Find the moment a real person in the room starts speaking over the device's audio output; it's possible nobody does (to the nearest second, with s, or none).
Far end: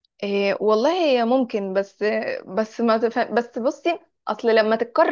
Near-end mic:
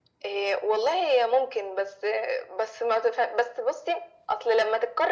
none